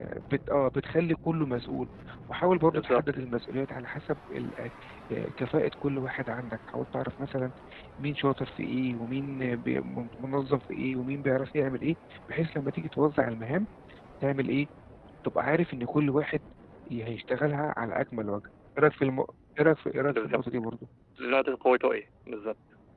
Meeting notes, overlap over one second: none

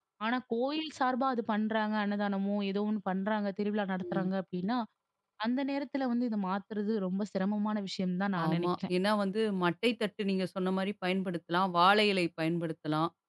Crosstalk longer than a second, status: none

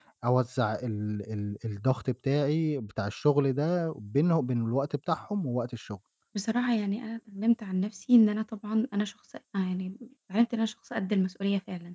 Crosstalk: none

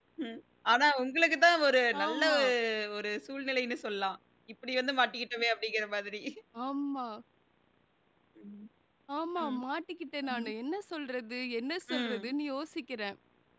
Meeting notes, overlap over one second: none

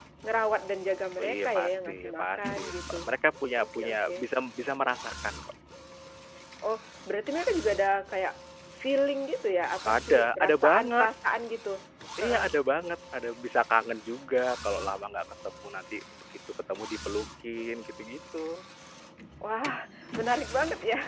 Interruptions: present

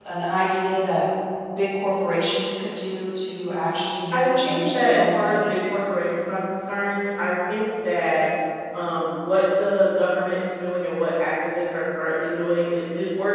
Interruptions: present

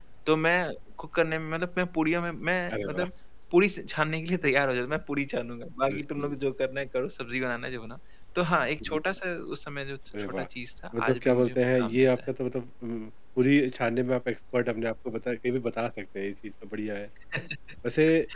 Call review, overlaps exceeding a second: present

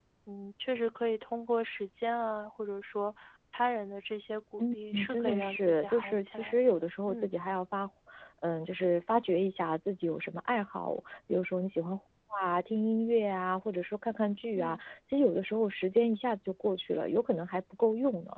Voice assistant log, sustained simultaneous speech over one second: present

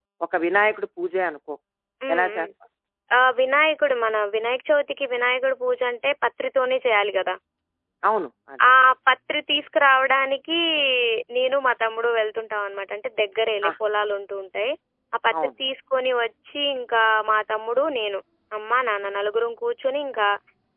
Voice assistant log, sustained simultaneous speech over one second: none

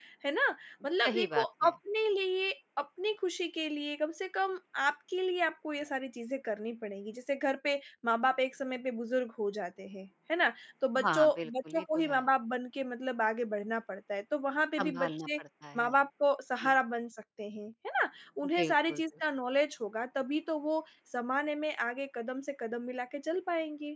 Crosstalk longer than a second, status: present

